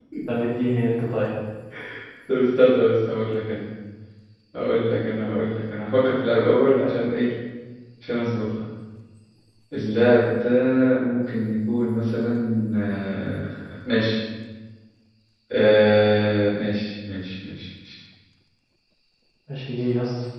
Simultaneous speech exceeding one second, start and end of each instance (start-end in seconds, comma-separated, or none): none